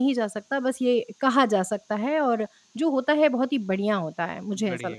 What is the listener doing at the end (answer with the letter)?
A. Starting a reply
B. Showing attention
A